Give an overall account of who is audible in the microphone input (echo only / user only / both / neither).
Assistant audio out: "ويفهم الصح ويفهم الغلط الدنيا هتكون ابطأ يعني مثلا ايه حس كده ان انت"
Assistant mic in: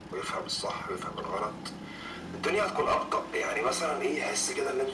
echo only